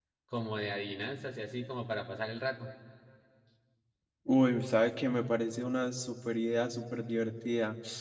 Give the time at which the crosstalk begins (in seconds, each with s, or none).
none